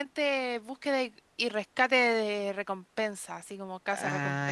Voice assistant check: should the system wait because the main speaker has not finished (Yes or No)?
No